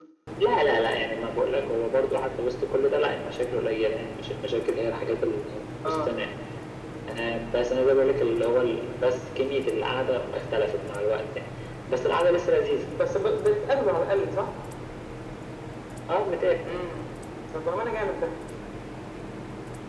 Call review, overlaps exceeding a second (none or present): none